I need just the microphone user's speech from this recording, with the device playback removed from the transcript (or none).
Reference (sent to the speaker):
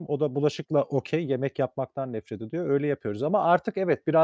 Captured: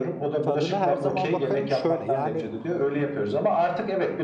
"Tadına her zaman bakarım." şöyle: Yani,